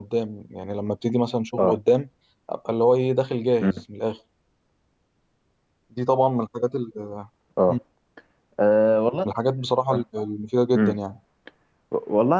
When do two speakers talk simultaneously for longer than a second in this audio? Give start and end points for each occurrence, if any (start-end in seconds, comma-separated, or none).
none